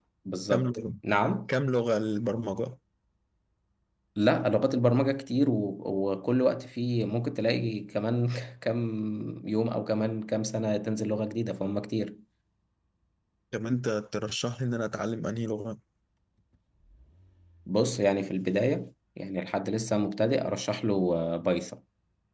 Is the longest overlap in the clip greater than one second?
No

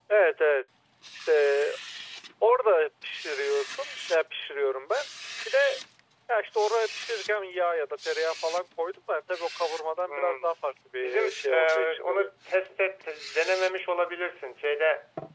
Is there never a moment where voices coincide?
No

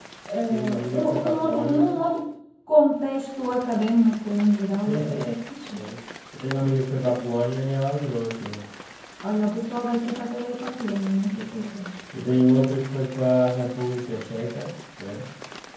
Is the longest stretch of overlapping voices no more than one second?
No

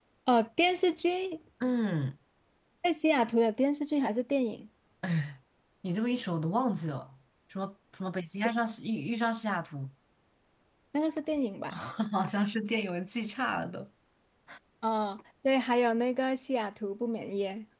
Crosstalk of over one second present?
No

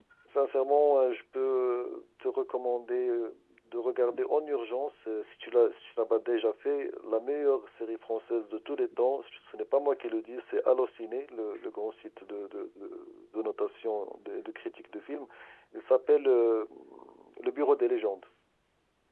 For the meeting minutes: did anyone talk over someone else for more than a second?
No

